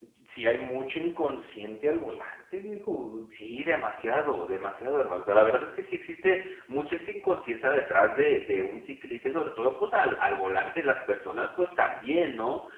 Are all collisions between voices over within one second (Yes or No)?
Yes